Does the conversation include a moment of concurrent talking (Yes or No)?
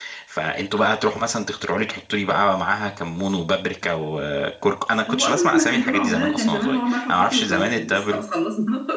Yes